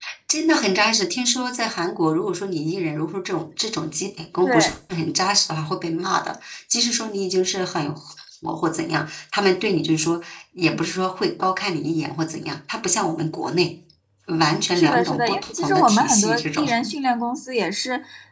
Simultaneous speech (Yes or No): Yes